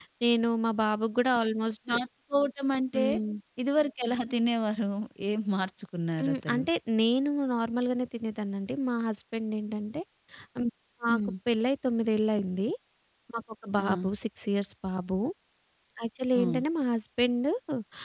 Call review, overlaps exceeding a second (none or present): none